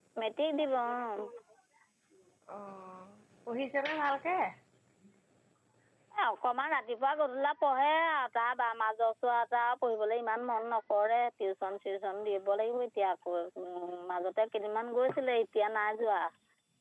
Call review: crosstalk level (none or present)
none